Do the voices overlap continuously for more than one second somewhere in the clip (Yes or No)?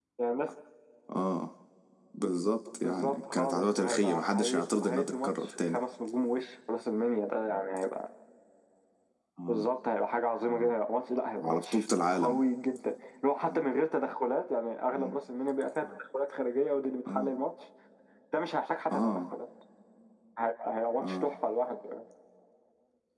Yes